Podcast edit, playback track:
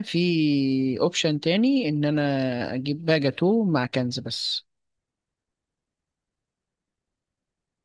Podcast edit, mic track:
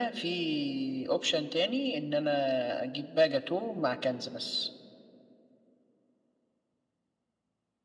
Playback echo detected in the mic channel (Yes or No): Yes